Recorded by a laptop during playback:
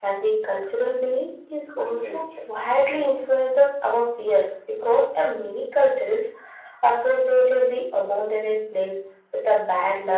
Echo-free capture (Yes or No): No